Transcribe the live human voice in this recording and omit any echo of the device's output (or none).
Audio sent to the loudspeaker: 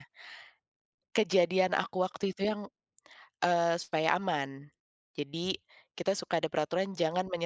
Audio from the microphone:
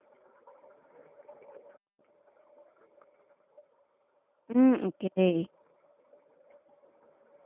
Mmm, oke.